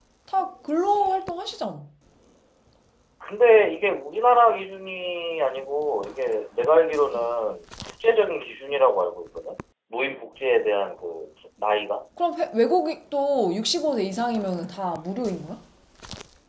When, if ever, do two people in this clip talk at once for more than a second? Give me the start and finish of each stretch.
none

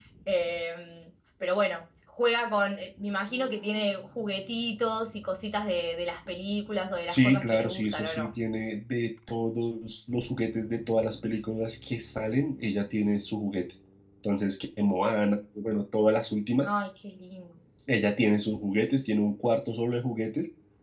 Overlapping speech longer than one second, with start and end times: 7.1-8.3

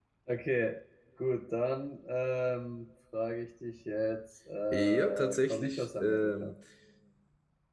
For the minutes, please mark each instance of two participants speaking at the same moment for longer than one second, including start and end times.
4.7-6.5

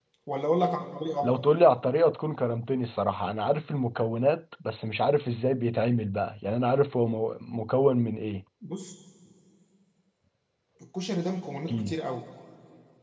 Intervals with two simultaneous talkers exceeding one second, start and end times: none

